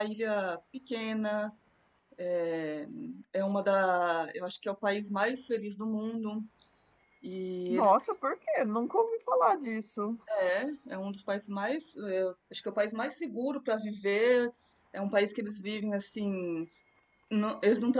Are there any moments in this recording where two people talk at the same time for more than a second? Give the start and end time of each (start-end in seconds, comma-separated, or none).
none